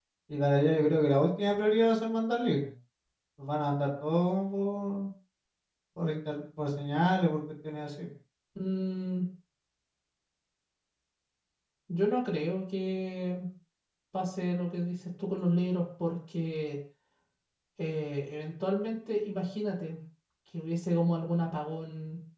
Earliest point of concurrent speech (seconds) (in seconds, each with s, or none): none